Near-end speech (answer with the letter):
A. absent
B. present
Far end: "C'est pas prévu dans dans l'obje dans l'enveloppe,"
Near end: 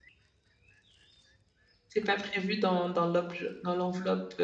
A